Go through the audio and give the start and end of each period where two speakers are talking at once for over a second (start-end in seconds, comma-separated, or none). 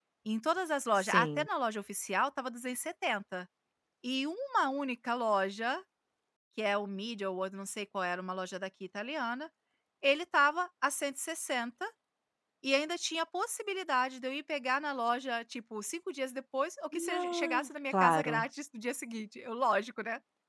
17.2-18.4